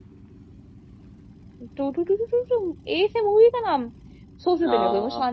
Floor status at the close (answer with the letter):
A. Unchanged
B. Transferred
A